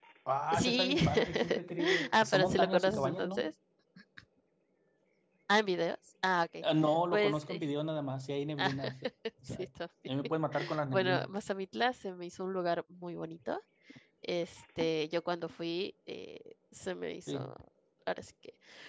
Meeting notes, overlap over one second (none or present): present